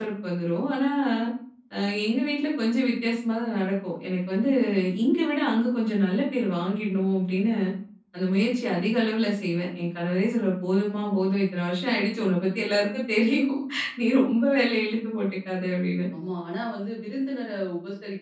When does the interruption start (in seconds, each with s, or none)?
none